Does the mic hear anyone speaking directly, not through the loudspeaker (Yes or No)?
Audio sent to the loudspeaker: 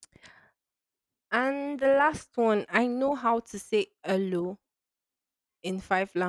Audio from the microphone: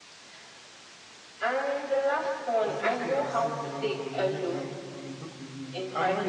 Yes